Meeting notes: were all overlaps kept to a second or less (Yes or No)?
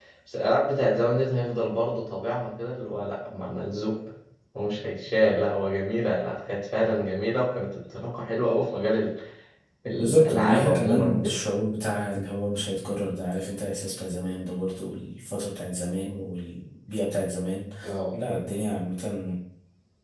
No